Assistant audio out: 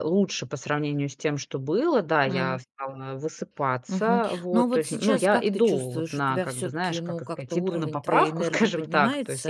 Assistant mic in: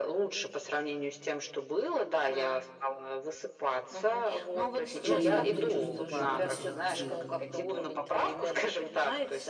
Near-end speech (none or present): present